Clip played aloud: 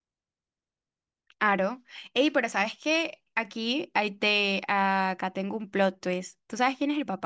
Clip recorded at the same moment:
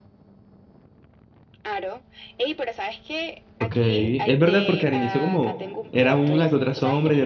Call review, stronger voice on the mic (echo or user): user